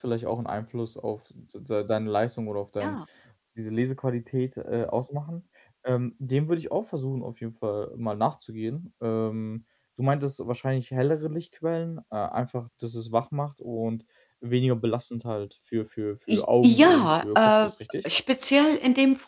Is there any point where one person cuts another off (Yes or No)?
Yes